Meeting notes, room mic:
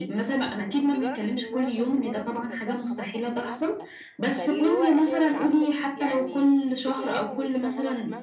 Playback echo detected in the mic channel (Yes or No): Yes